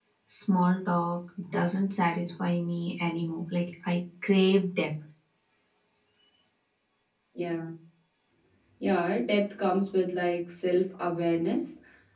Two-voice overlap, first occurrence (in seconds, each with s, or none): none